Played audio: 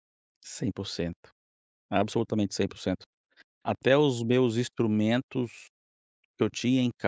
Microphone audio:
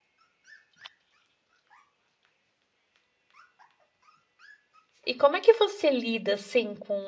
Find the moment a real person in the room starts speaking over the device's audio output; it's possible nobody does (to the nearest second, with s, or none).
5 s